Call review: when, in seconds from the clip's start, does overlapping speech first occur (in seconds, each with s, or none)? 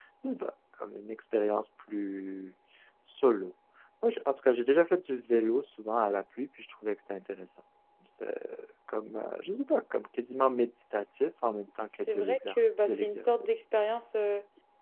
12.1 s